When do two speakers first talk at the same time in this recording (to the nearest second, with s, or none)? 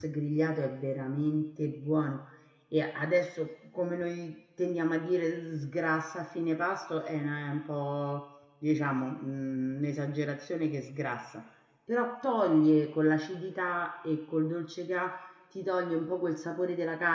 none